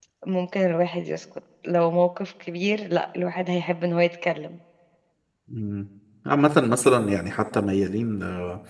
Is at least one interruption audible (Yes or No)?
No